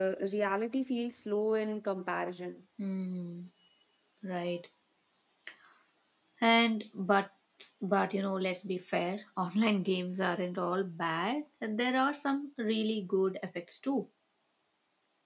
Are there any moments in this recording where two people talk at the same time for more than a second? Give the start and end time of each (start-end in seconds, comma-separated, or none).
none